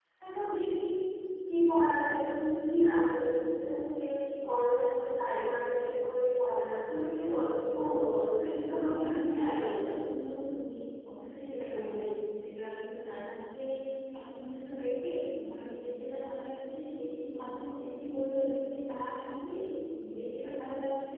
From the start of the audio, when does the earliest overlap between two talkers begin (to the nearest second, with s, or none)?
8 s